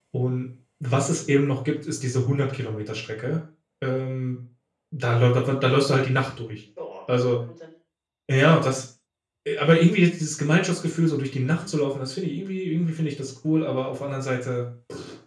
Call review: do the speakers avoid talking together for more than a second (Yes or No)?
Yes